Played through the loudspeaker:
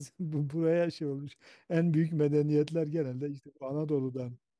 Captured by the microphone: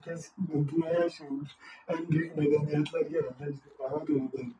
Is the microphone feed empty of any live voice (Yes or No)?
Yes